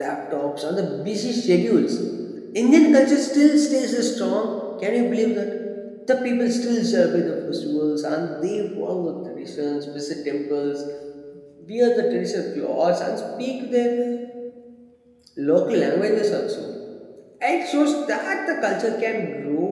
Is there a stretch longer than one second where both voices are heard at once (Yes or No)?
No